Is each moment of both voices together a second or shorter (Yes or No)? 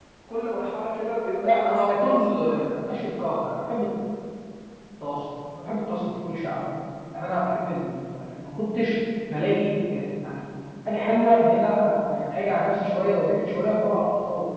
No